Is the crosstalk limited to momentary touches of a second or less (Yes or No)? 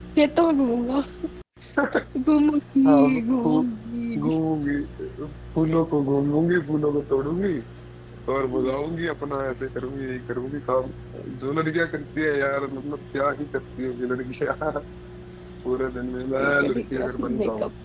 No